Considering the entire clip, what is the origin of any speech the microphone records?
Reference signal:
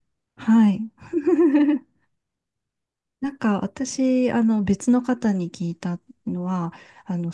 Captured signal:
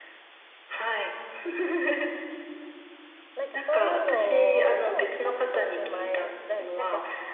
both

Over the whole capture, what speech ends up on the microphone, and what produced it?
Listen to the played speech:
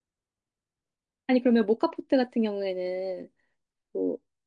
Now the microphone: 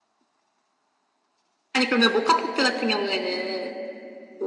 echo only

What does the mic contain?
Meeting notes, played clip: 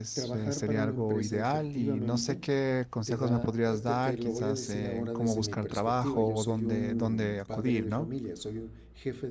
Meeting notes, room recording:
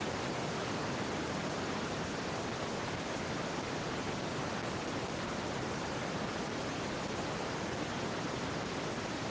neither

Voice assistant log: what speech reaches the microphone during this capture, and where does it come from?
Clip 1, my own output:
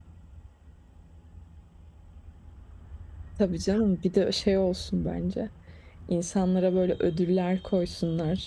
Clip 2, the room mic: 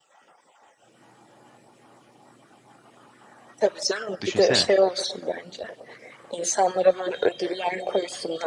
both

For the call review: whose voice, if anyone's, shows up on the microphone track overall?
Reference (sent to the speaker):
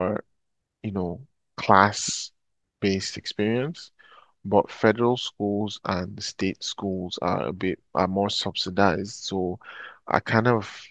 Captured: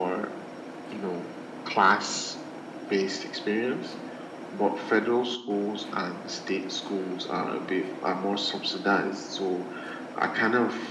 echo only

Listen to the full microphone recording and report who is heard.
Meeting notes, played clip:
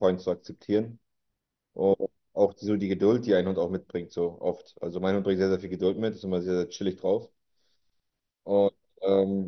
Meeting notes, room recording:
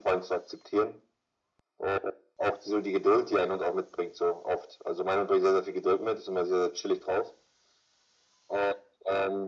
echo only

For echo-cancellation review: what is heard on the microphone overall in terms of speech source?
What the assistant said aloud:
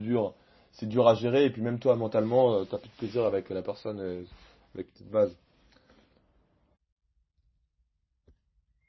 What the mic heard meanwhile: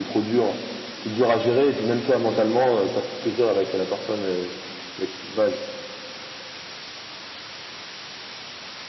echo only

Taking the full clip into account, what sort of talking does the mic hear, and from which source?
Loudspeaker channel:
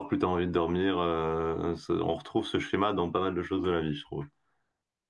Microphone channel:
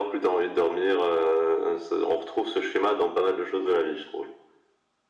echo only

